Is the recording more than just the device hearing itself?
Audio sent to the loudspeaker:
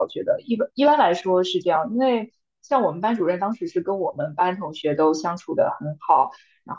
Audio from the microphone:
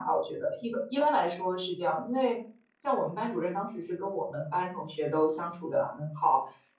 No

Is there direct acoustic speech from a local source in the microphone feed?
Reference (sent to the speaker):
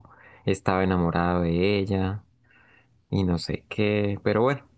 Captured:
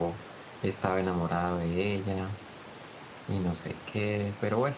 No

